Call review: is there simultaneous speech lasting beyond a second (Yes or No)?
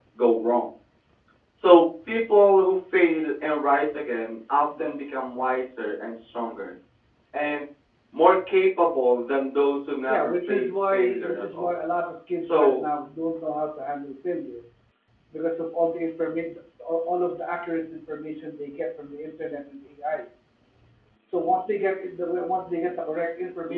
Yes